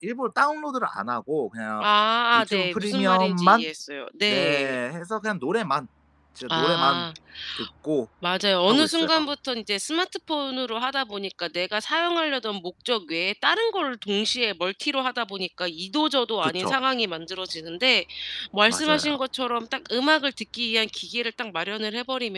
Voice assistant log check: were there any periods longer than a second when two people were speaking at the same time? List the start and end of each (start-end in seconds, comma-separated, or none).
2.4-3.6